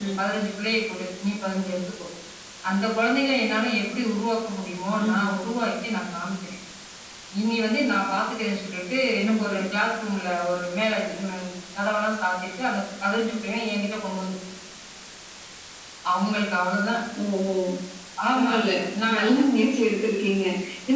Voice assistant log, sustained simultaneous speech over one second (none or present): none